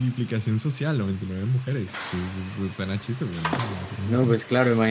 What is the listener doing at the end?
taking over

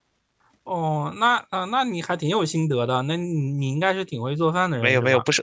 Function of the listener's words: taking over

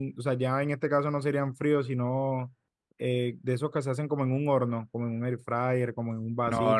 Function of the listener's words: listening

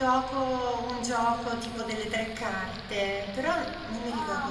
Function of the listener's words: taking over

